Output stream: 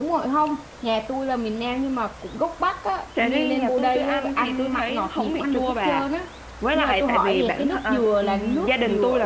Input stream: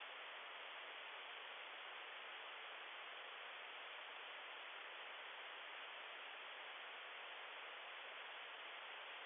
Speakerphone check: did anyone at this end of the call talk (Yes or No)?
No